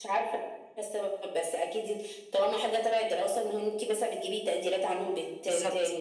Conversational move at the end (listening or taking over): taking over